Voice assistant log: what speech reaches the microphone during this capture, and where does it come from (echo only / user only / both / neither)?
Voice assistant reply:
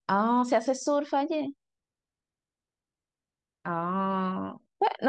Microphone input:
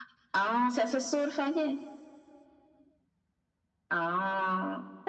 echo only